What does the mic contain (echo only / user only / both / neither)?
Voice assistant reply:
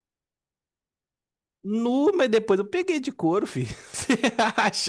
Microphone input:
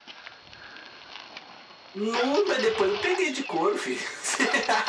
echo only